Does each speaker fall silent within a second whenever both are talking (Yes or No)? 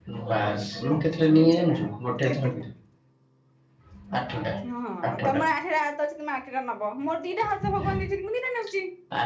Yes